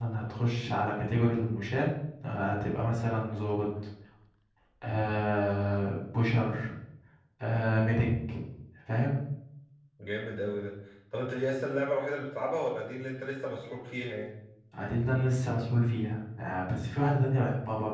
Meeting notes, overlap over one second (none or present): none